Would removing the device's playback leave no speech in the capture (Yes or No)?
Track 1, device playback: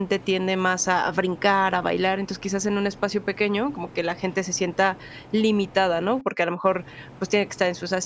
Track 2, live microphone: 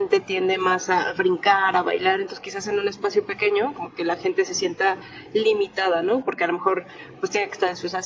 Yes